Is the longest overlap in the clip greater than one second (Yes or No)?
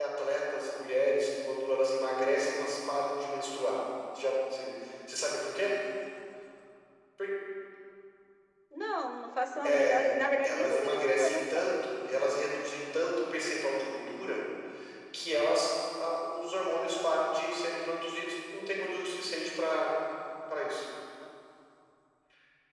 Yes